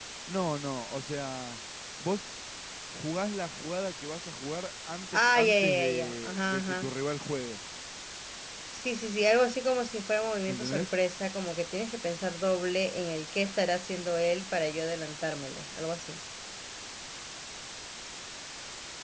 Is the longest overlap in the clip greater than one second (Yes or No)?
Yes